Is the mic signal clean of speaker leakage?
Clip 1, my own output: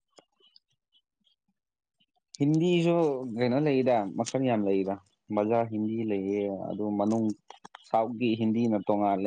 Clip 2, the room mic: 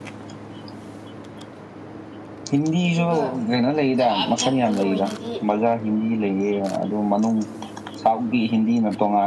No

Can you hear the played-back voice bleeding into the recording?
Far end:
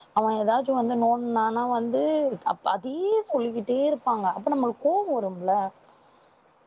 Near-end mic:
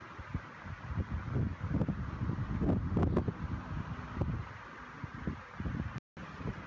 No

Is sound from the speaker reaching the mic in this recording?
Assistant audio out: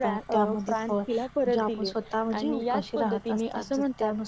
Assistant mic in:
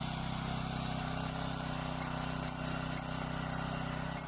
No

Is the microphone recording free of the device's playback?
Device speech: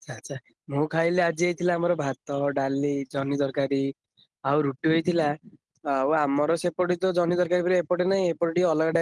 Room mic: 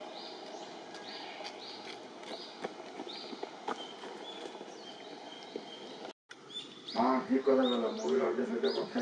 Yes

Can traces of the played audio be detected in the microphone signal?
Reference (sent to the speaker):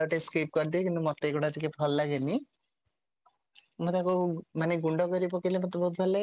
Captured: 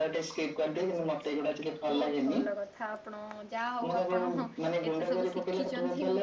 Yes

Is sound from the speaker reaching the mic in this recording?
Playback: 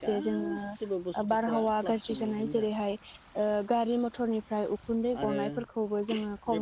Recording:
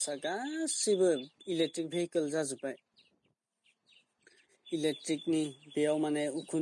No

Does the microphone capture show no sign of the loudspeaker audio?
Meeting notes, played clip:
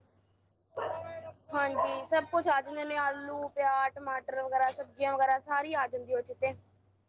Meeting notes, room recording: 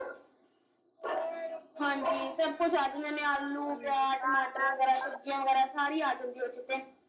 No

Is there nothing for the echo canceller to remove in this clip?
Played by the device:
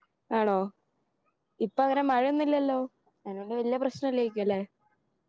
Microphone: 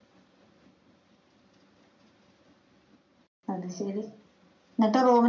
Yes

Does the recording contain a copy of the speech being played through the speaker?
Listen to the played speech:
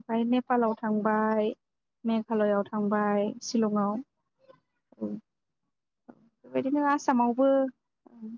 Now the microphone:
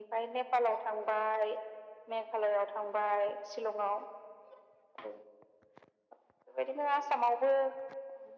Yes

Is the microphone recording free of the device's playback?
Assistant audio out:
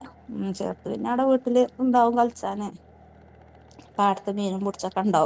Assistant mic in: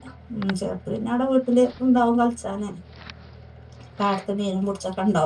No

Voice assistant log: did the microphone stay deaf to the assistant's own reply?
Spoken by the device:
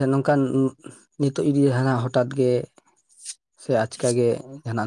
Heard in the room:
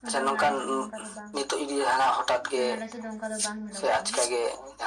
No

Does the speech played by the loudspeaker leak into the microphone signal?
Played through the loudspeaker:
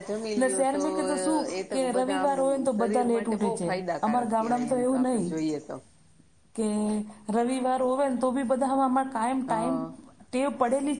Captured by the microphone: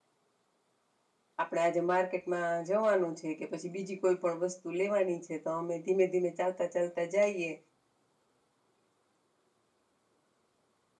No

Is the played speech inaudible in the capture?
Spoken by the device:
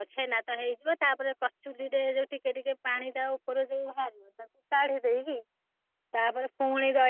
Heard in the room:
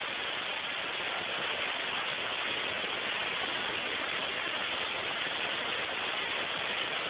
Yes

